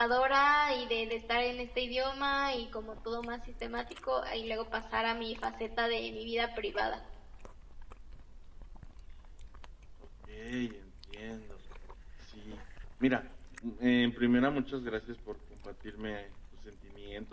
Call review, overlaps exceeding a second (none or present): none